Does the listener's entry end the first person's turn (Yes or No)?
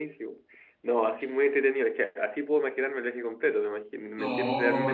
No